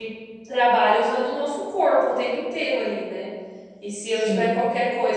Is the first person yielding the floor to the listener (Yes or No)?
No